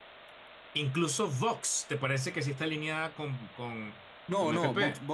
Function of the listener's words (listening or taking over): taking over